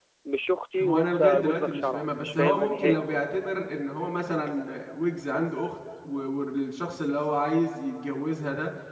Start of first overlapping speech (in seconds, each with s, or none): 0.8 s